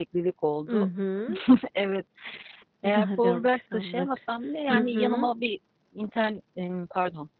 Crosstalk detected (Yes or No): Yes